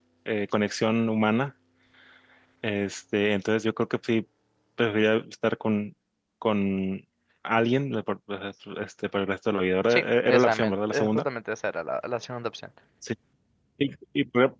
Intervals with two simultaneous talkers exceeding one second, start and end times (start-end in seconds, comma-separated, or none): 9.9-11.2